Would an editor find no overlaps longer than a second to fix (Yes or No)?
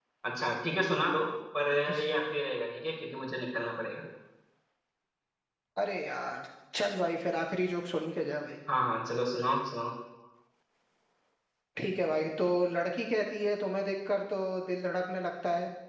Yes